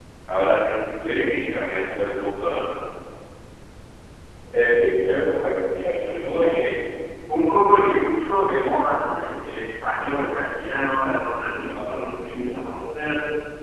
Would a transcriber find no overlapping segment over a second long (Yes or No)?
Yes